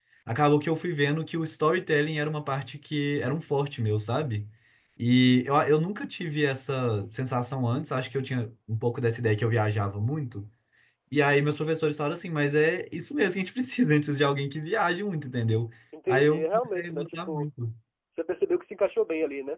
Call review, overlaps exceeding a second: present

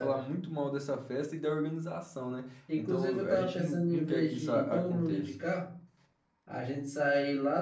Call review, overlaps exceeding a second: present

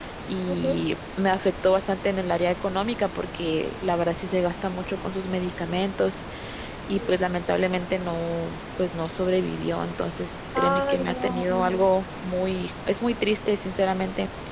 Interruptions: present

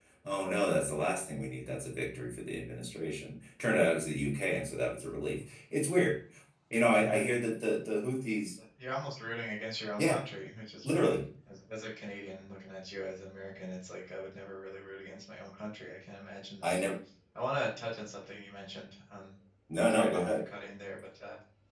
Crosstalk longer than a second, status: none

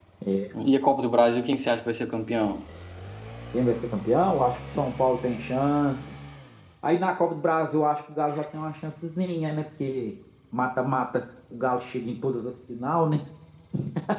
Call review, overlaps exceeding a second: none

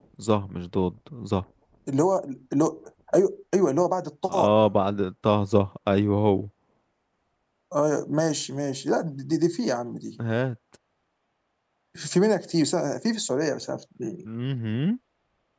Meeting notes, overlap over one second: none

